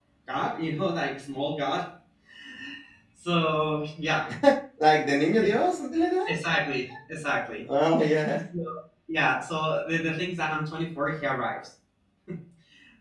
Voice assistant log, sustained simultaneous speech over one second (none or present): none